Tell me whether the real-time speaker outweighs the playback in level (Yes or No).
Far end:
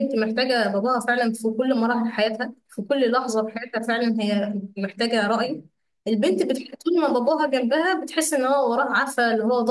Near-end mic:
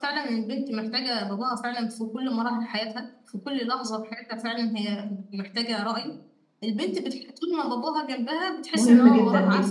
Yes